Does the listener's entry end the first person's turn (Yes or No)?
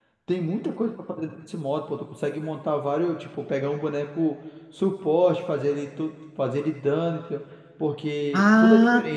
Yes